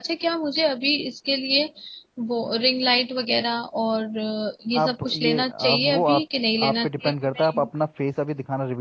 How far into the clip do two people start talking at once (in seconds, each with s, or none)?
4.8 s